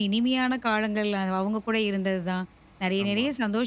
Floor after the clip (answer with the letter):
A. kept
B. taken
A